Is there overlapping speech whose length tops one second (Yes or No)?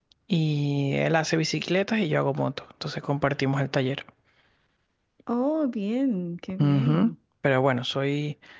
No